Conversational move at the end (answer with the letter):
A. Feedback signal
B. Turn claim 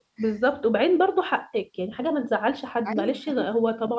A